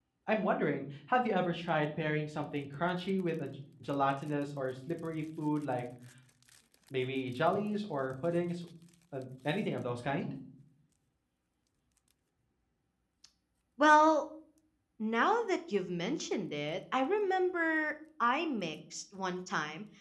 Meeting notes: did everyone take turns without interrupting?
Yes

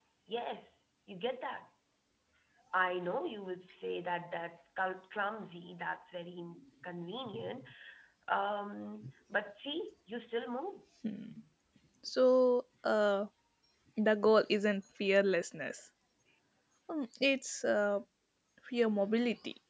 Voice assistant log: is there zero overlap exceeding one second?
Yes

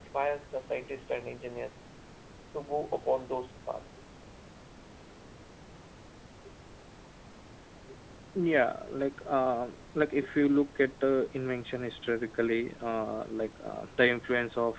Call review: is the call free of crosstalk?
Yes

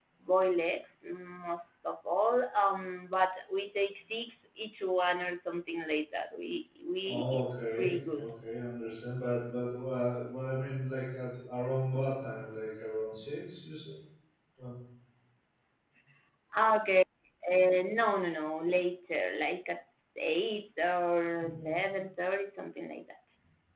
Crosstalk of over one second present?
Yes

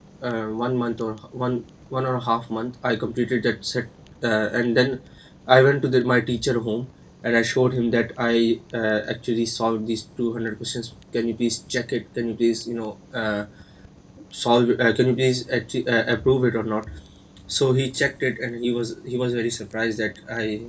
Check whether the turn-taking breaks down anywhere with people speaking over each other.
No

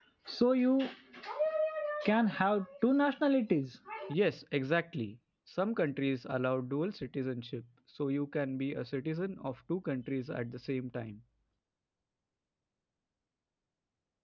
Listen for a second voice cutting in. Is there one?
No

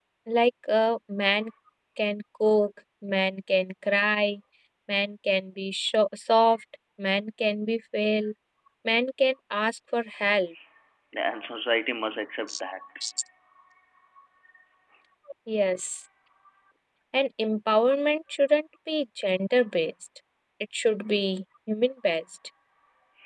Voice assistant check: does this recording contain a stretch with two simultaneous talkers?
No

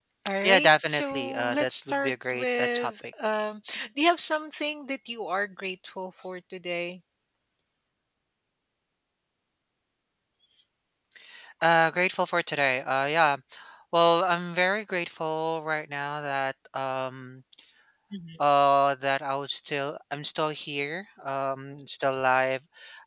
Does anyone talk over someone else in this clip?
Yes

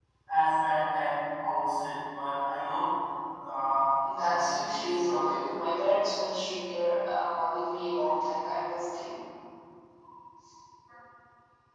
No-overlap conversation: No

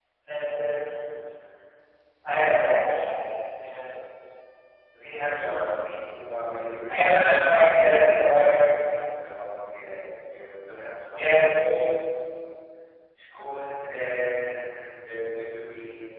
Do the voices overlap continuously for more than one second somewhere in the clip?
Yes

